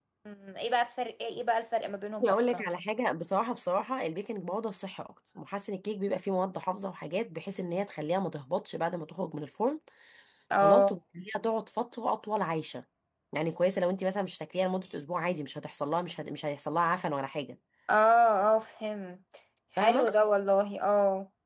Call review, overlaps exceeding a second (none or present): none